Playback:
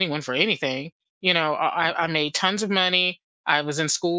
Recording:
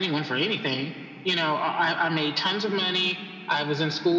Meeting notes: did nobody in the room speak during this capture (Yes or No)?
Yes